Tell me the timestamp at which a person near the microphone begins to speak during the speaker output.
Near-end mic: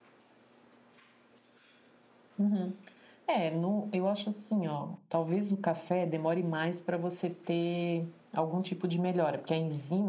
2.4 s

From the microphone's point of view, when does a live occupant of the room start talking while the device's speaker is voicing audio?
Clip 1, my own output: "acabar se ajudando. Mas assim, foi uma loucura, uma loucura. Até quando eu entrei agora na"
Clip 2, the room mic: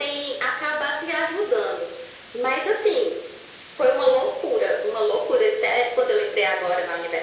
none

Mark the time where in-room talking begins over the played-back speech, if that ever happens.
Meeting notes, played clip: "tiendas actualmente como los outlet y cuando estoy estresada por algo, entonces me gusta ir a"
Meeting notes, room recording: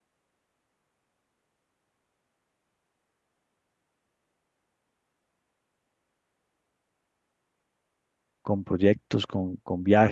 8.4 s

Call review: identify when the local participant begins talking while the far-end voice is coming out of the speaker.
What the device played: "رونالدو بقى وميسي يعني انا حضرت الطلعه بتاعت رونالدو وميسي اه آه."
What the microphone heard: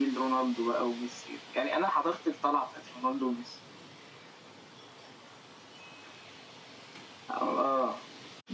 none

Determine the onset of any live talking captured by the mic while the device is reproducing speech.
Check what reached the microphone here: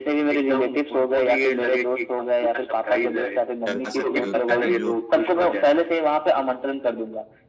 3.7 s

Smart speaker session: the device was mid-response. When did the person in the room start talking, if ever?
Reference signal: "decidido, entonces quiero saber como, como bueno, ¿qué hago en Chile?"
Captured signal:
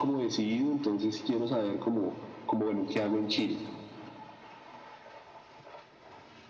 none

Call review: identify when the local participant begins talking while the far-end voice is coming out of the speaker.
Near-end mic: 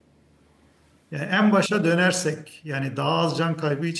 1.1 s

